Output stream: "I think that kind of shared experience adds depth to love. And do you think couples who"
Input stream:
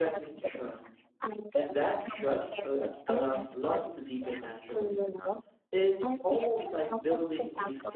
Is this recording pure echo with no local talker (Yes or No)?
No